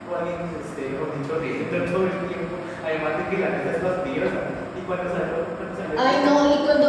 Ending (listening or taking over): taking over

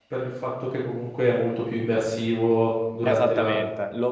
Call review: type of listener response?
taking over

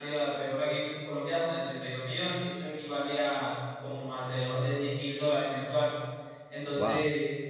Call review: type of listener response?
listening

